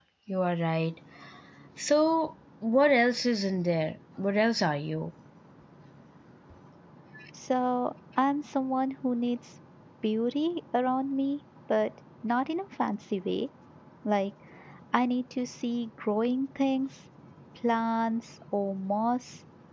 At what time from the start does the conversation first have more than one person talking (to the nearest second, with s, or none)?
none